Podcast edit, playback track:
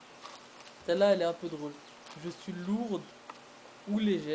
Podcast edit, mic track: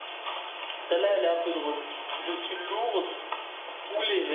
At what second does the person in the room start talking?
none

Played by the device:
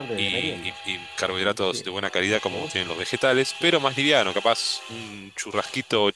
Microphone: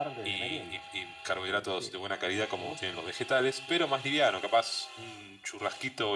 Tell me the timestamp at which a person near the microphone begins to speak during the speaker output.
none

